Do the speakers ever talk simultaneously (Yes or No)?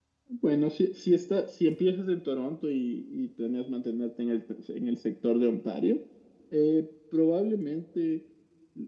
No